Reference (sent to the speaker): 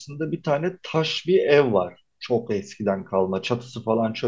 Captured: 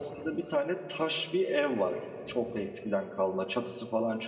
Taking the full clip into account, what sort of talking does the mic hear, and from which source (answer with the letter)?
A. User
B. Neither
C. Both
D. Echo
D